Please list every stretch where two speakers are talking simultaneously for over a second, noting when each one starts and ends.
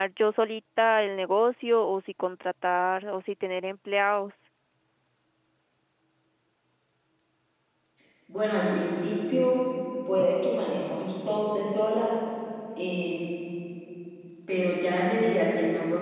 none

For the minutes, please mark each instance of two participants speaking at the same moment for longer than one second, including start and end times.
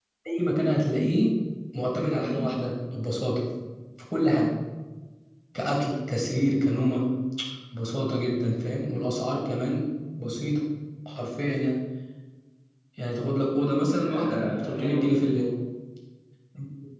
14.0-15.5

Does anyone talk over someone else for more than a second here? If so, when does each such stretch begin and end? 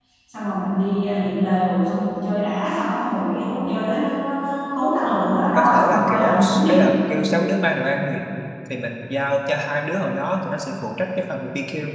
5.4-6.8

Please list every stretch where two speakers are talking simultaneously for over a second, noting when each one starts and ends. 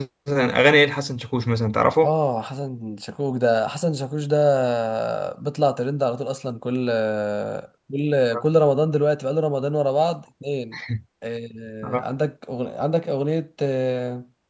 none

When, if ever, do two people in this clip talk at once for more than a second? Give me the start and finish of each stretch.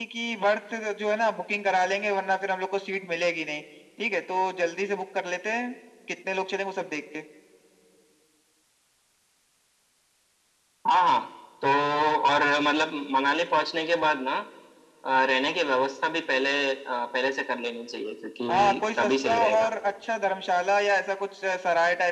18.5-19.7

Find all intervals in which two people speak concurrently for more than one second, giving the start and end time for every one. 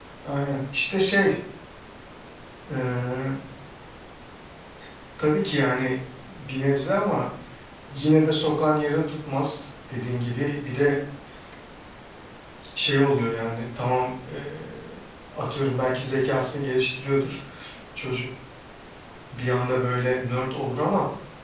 none

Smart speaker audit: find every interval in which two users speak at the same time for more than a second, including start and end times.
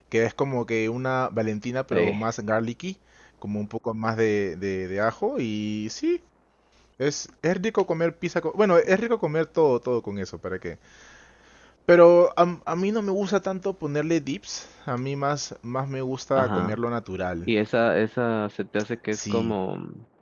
none

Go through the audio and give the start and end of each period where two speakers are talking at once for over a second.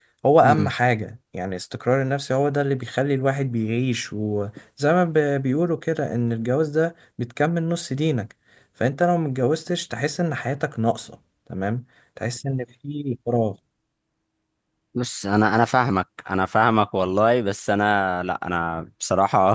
none

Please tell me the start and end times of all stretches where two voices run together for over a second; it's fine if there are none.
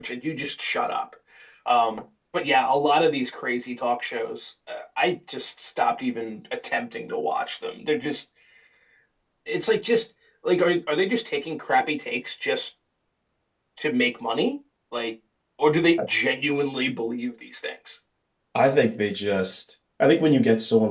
none

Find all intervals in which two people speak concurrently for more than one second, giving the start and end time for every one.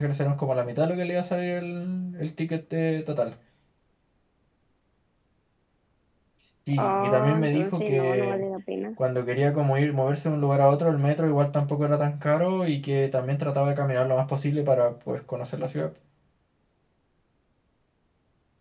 6.8-8.4

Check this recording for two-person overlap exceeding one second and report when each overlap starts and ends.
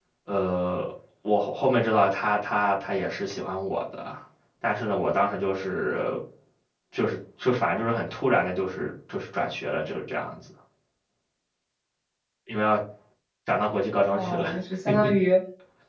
none

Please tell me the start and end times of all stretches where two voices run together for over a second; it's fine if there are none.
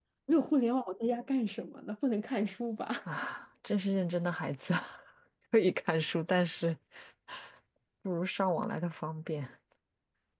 none

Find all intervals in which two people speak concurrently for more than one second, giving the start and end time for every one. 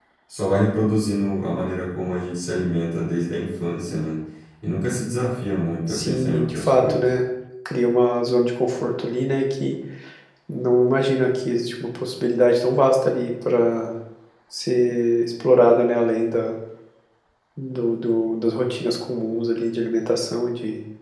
5.9-7.1

